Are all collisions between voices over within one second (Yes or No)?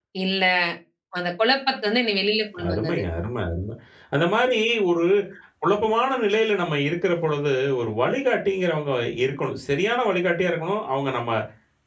Yes